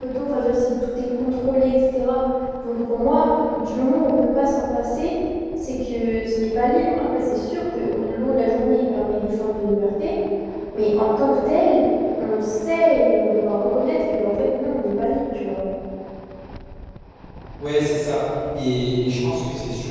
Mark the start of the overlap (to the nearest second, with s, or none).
none